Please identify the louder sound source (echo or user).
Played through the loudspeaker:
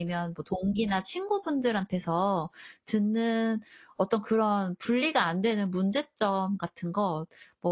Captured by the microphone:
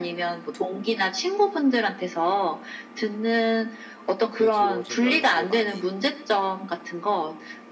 echo